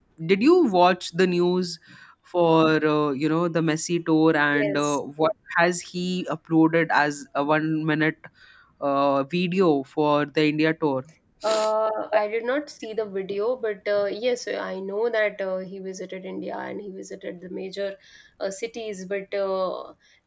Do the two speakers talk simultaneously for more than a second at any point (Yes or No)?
No